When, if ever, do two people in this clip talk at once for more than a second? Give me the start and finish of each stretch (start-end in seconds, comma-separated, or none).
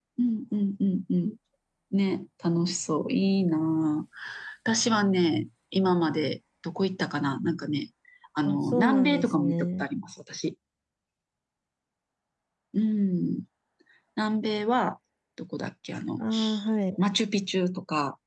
8.5-9.8